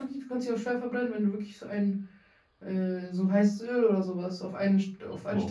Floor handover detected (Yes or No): Yes